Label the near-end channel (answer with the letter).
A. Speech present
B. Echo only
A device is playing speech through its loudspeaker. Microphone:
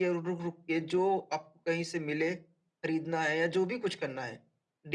B